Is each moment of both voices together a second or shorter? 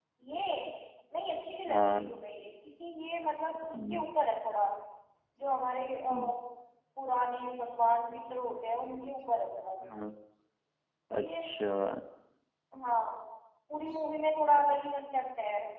Yes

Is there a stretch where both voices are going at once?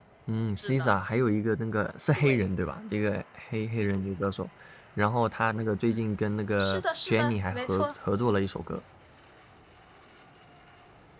Yes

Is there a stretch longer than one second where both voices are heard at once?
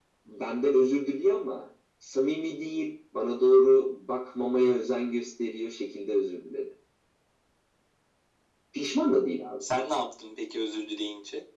No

